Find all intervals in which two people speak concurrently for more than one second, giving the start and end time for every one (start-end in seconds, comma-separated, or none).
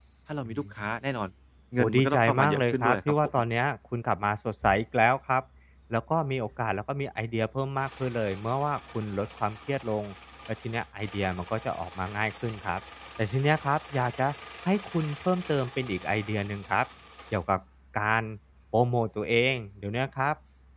1.8-3.1